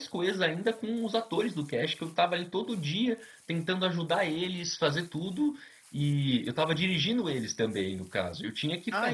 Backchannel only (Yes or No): No